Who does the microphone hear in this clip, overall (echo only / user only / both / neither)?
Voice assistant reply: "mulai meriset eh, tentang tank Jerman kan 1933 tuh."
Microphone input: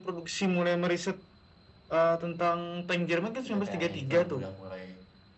both